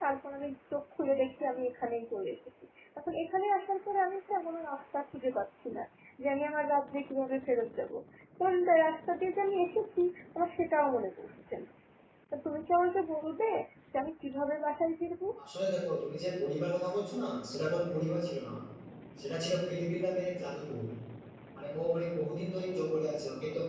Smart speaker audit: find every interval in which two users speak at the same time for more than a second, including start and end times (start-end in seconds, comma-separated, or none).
none